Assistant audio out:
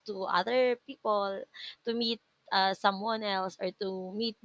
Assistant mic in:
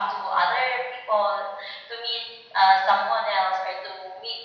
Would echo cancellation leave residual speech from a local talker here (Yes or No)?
No